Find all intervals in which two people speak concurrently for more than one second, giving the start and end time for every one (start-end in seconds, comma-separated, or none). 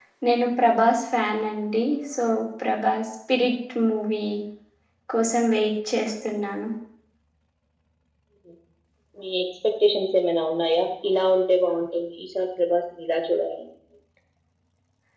none